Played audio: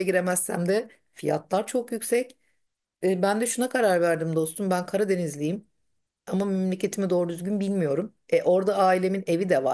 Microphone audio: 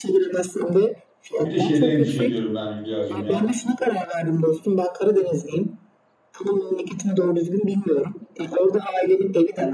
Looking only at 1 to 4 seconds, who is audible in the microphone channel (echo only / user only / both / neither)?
both